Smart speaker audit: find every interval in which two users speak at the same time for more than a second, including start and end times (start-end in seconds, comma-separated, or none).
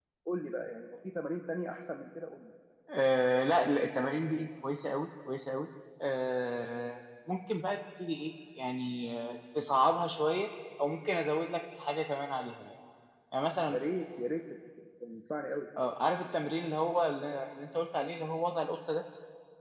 none